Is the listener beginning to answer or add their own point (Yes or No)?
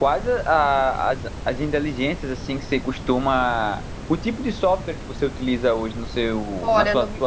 Yes